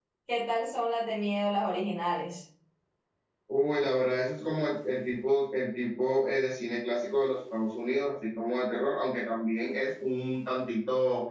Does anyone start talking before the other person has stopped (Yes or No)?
No